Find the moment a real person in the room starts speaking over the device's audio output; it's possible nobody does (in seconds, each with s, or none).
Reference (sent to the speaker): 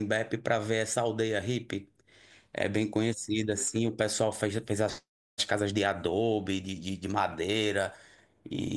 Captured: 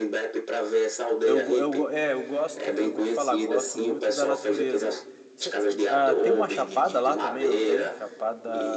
1.2 s